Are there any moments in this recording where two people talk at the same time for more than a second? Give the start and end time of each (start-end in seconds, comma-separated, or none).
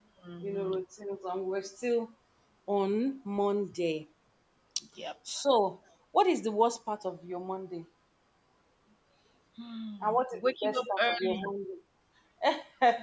10.0-11.5